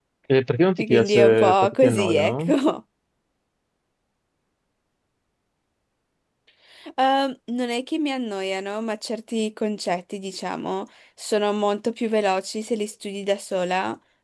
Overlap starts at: 1 s

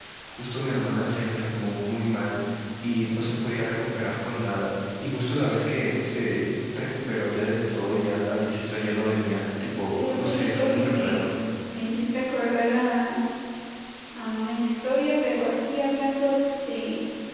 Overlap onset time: 10 s

